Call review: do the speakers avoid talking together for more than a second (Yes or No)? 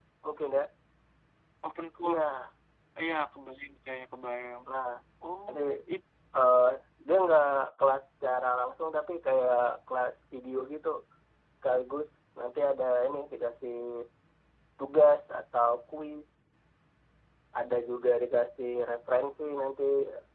Yes